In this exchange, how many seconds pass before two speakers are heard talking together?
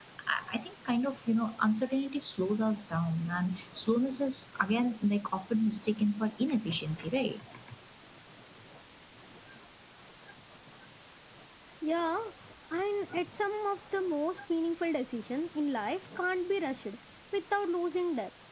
none

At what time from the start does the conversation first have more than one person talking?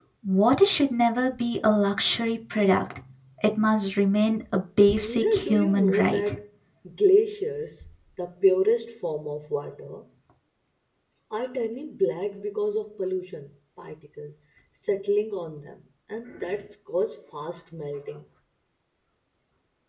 4.9 s

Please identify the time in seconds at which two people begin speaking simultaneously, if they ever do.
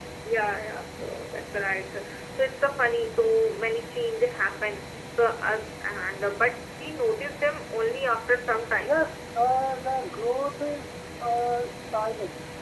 none

